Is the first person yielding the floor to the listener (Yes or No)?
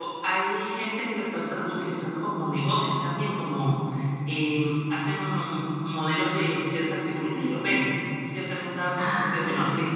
No